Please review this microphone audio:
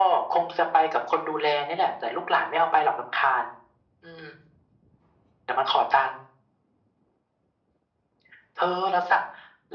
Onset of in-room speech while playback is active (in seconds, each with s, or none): none